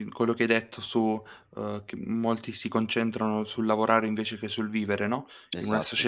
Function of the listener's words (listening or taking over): listening